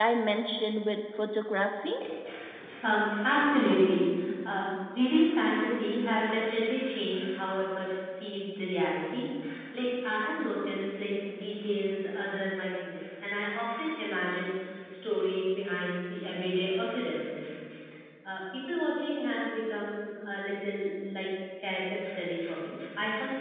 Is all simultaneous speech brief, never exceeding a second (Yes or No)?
Yes